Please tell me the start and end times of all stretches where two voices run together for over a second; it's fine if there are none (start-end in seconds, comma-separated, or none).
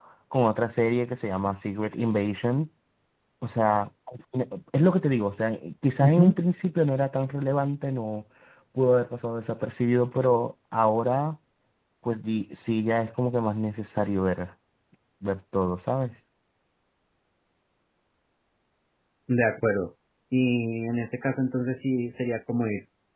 none